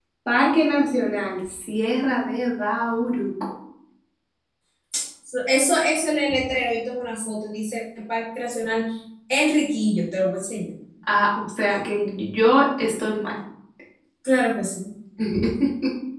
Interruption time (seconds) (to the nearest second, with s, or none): none